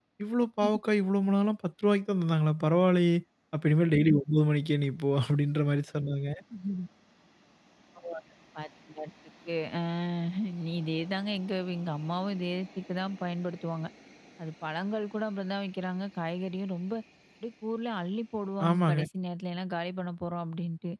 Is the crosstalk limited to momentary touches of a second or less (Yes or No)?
Yes